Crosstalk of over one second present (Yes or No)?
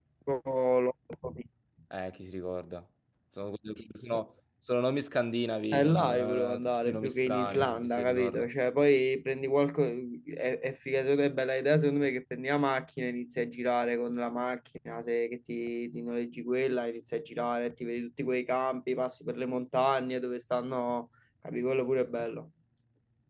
Yes